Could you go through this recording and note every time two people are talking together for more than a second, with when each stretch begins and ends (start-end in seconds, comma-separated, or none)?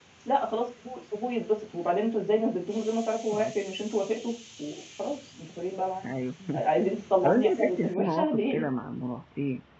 7.2-8.7